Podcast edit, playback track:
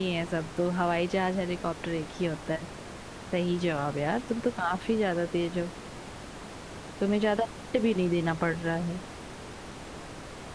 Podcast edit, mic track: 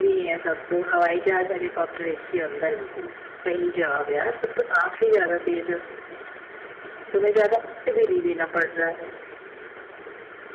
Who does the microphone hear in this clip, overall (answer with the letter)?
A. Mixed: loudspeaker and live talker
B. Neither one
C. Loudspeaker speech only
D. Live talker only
A